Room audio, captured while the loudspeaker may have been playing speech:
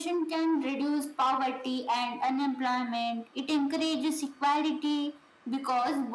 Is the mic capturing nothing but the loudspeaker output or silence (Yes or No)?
Yes